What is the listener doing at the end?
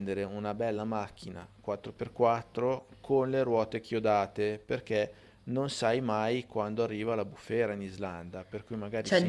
taking over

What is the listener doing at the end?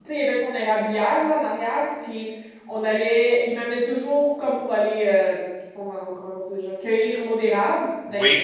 listening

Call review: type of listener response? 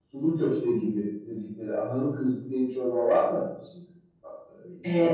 taking over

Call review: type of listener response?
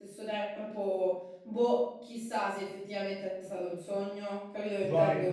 taking over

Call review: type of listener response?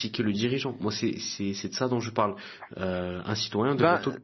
listening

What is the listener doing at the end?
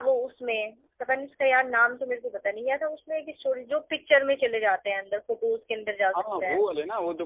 taking over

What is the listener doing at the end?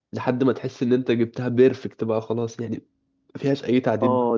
taking over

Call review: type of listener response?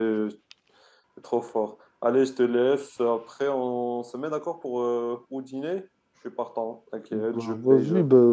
taking over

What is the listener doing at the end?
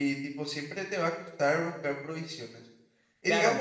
taking over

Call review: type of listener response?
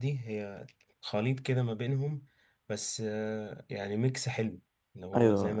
taking over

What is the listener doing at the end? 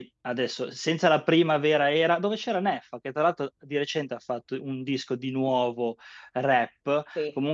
listening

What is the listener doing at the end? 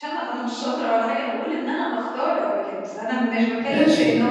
listening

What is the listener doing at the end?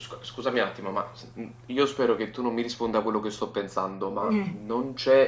listening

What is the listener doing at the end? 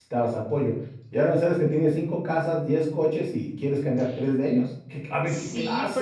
taking over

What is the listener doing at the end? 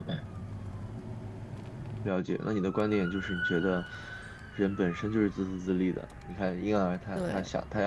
listening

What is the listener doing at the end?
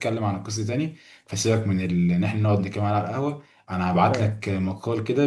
listening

